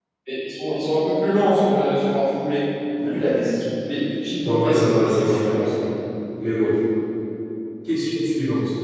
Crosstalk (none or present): present